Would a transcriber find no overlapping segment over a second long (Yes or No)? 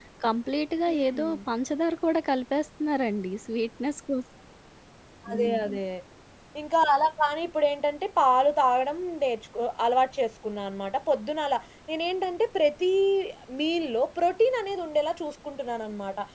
Yes